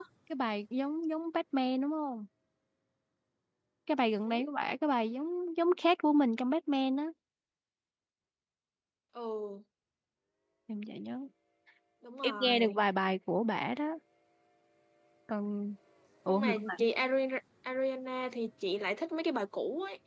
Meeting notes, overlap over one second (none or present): none